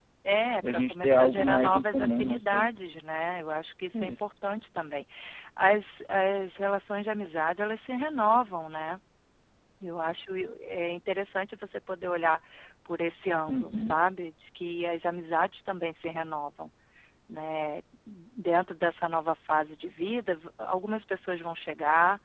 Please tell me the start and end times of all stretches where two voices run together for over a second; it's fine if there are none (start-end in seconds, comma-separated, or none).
0.7-2.7